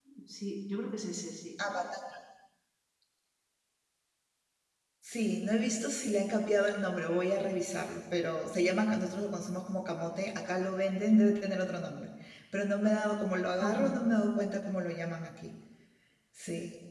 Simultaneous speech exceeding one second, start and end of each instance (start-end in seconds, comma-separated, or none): none